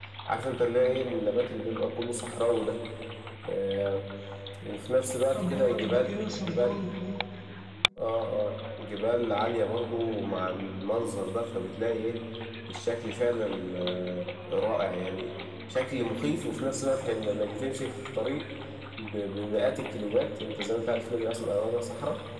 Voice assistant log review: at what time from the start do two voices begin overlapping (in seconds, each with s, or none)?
5.3 s